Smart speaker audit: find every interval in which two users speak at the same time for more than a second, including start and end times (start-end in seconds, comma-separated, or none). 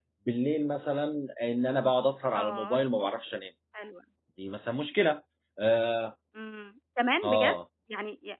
none